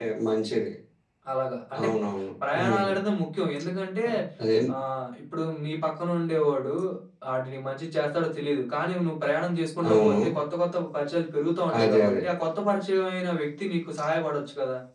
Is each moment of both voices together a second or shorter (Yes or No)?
Yes